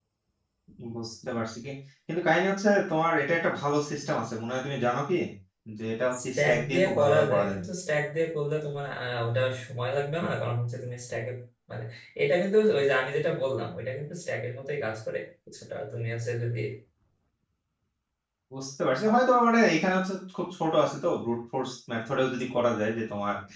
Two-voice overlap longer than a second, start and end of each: 6.2-7.6

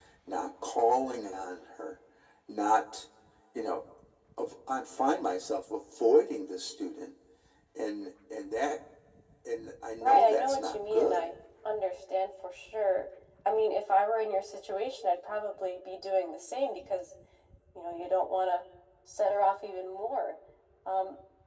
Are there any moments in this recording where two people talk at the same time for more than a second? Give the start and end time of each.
10.0-11.3

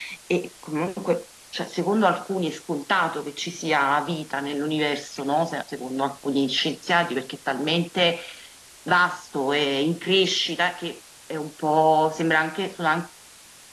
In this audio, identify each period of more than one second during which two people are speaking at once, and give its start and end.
none

